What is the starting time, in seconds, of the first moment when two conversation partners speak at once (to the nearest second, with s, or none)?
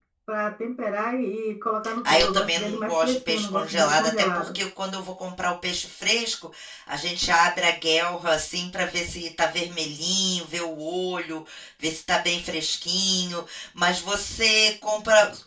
2 s